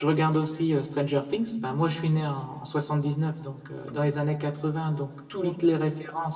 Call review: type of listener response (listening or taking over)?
listening